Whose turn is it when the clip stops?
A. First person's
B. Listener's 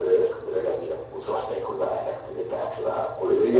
B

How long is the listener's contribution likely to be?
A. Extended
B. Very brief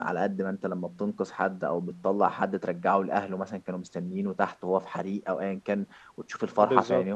B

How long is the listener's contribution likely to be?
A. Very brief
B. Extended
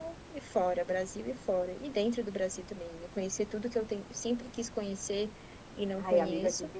B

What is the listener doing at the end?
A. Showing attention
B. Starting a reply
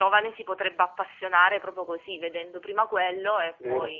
B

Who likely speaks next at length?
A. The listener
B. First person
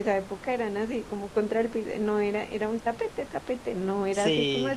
B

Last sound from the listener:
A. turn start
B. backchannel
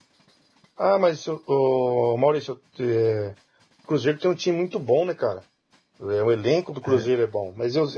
B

